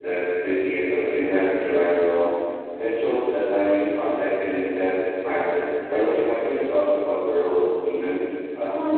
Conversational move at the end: taking over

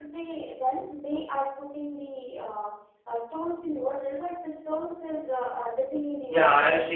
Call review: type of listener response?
taking over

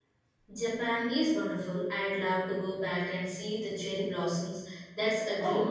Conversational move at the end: taking over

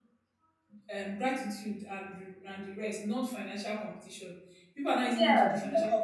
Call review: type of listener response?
taking over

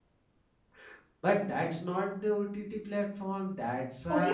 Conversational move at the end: taking over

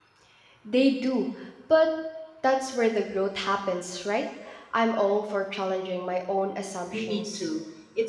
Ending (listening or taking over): taking over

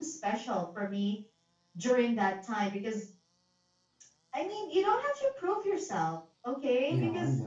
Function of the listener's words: listening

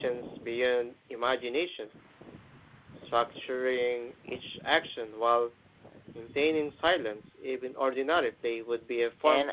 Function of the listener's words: taking over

